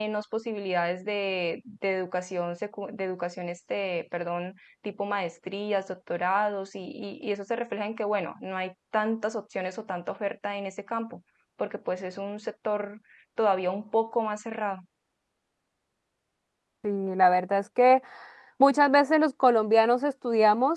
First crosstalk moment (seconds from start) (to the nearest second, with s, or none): none